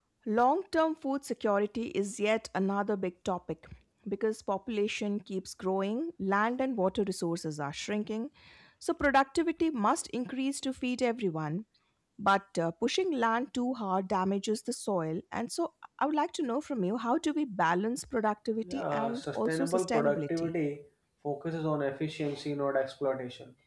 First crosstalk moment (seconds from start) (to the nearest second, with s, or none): 19 s